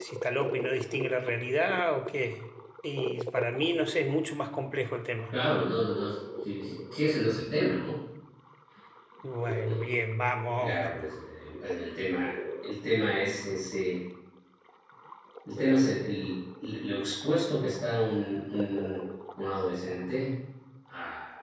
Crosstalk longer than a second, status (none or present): none